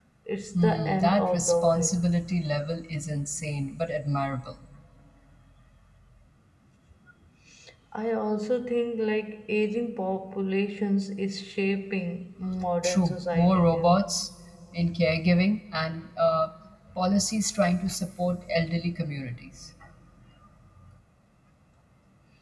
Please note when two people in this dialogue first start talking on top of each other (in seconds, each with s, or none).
0.6 s